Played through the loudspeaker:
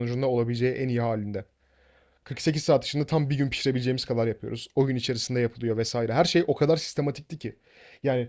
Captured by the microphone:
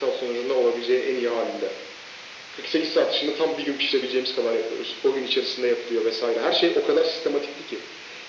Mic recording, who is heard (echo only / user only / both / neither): echo only